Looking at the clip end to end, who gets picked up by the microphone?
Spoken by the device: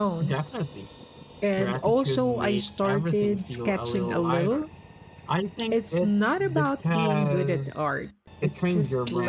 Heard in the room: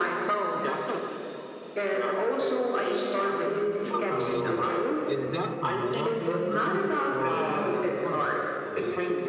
both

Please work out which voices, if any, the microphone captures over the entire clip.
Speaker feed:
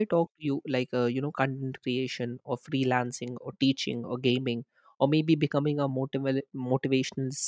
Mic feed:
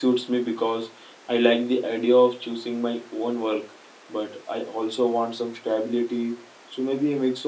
user only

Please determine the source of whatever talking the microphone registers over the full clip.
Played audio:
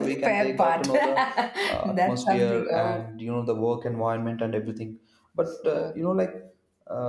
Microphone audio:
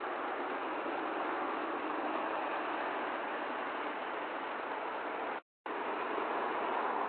neither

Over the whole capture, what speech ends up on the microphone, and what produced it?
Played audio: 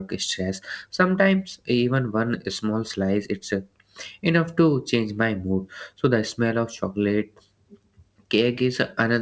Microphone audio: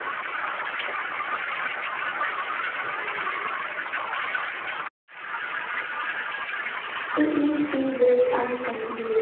user only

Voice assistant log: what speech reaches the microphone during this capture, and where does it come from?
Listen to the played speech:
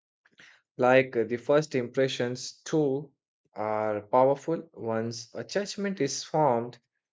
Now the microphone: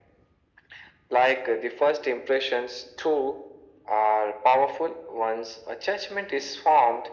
echo only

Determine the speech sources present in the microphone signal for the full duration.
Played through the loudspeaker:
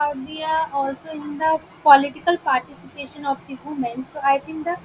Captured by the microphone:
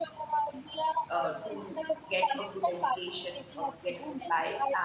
both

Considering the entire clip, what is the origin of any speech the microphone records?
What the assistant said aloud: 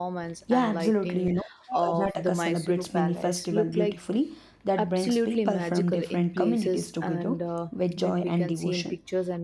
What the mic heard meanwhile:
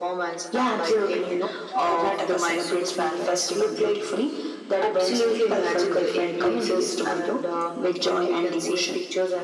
echo only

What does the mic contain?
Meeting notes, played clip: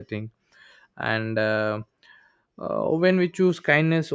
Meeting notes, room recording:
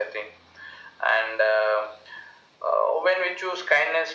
echo only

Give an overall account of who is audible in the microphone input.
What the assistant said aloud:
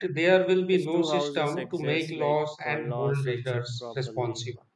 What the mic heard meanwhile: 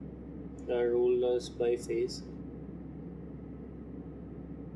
user only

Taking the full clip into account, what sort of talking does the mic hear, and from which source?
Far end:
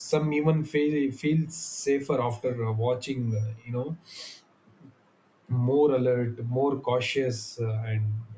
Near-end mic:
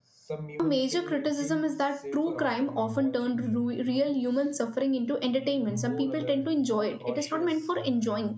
both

